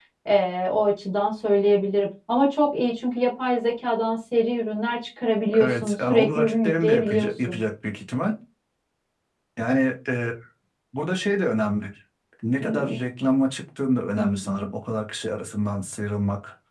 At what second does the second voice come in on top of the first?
5.6 s

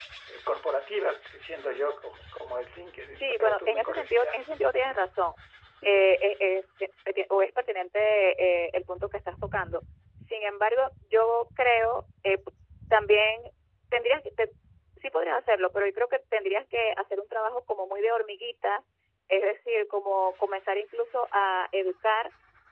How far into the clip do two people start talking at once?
3.2 s

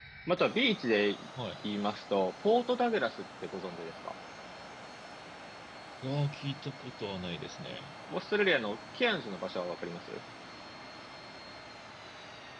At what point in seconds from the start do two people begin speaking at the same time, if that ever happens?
none

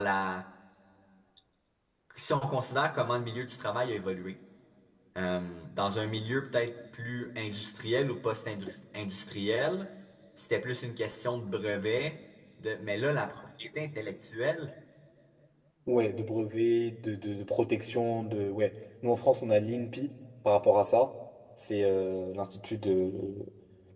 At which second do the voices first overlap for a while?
none

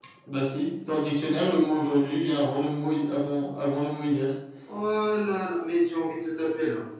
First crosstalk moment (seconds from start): none

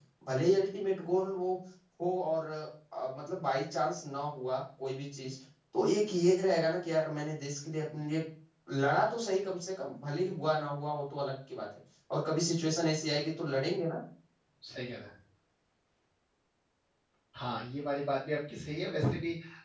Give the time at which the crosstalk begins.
none

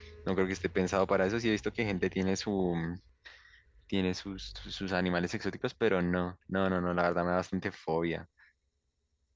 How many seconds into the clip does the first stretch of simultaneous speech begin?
none

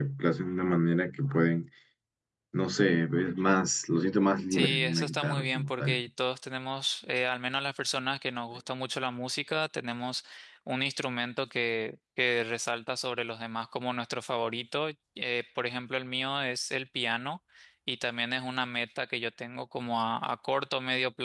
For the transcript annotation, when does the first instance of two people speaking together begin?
4.5 s

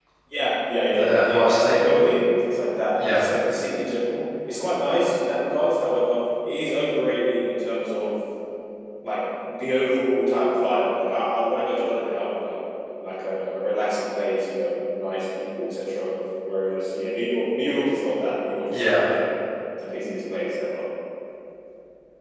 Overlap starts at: 0.9 s

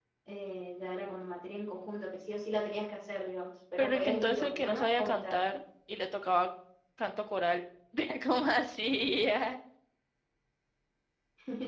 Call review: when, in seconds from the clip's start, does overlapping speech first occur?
3.8 s

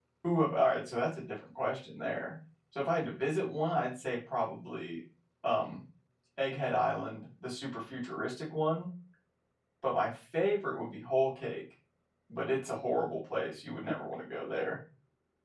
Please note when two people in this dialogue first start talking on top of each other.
none

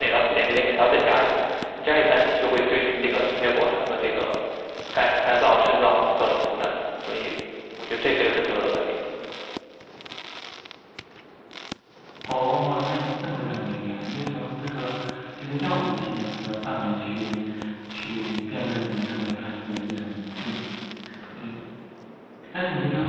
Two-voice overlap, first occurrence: none

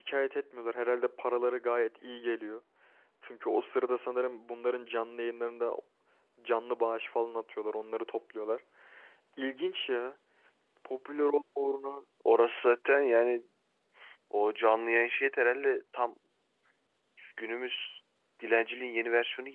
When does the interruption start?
none

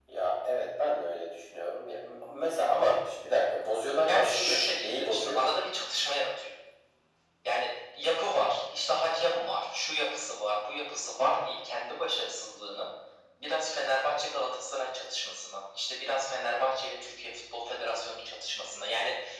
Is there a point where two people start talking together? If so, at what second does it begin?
4.0 s

